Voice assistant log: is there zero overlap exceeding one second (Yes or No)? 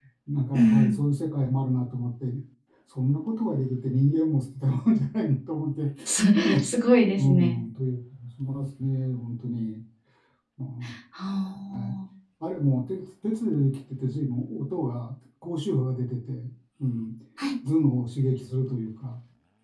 Yes